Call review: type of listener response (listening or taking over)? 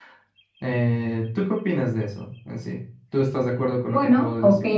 taking over